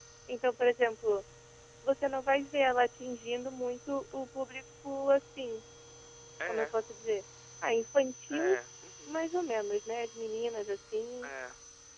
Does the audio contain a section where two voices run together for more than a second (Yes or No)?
No